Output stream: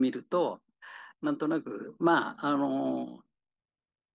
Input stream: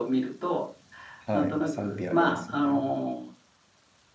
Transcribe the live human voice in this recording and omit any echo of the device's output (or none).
はい。賛否ありますよね。